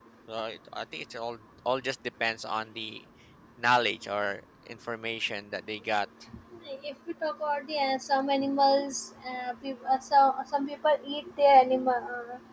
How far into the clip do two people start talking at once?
none

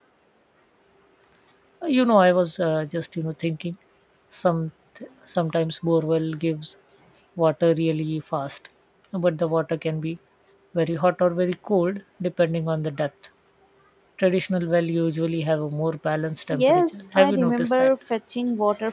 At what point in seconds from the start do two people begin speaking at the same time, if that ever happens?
16.5 s

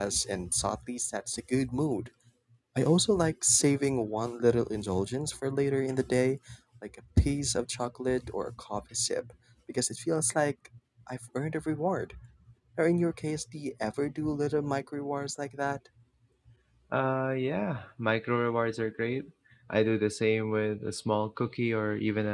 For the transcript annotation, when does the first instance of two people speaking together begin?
none

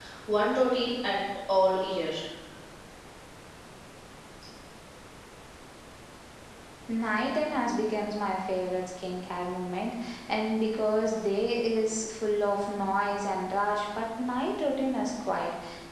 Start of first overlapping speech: none

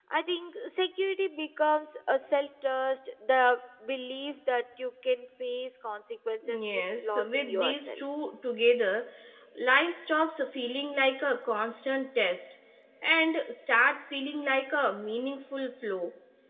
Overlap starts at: 6.4 s

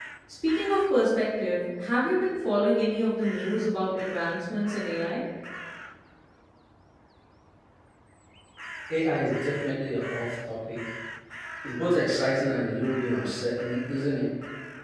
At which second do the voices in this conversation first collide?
none

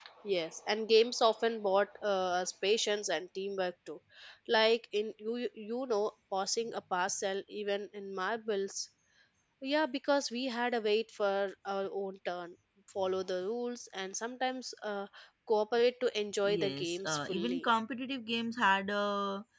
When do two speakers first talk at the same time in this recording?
16.4 s

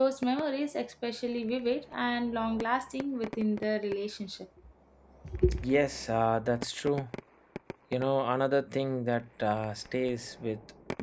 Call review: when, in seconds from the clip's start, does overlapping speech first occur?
none

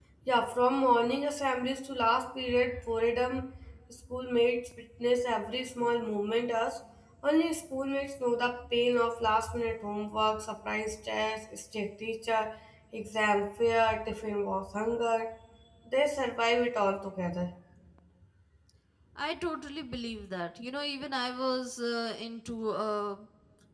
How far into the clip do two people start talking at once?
none

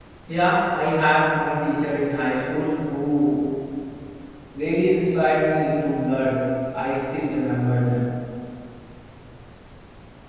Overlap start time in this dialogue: none

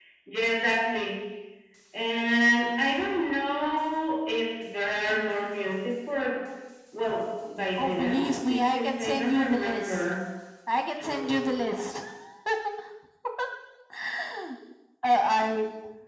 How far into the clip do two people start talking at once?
7.8 s

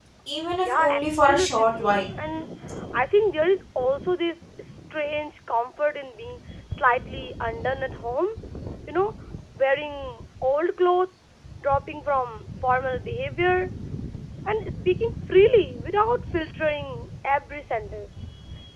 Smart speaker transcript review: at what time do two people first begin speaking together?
0.6 s

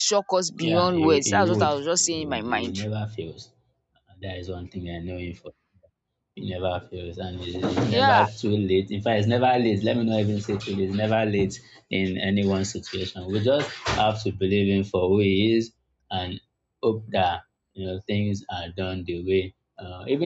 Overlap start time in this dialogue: 0.6 s

